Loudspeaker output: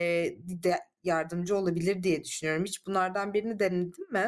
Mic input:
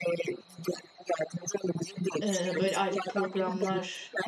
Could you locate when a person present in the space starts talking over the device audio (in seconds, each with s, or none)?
2.2 s